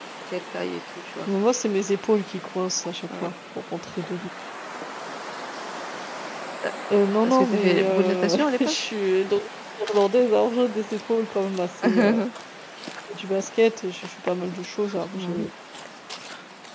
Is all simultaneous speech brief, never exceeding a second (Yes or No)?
No